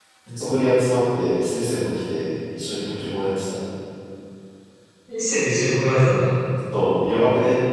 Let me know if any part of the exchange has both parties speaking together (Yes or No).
No